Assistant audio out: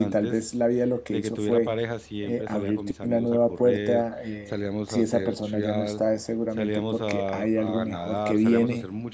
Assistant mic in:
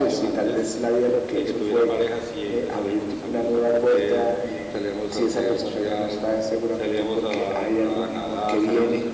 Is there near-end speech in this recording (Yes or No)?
No